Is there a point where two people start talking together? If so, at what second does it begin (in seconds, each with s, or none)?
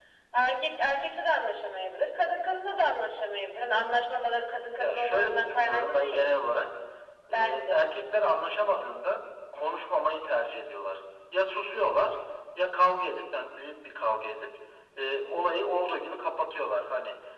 4.8 s